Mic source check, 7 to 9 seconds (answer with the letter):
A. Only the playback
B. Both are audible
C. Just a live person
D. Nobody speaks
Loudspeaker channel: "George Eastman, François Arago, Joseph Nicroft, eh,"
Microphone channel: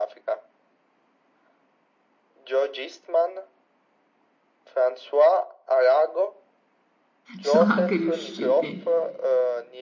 B